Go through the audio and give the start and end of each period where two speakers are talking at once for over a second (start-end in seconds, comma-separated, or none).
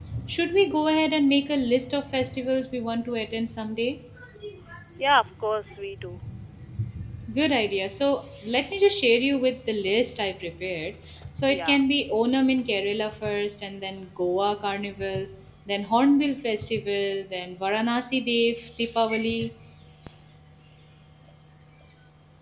none